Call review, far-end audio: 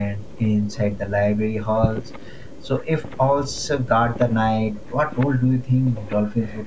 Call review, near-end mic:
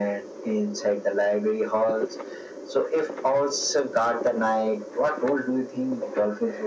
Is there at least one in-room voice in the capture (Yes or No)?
No